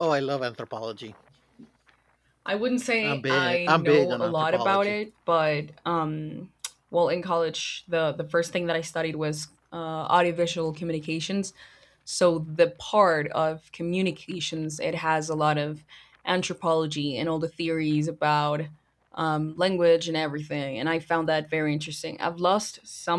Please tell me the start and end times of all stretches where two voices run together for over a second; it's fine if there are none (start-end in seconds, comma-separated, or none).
3.0-4.9